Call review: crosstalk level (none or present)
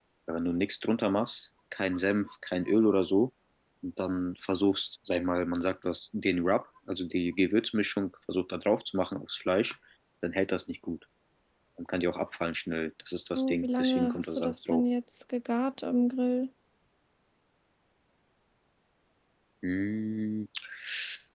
present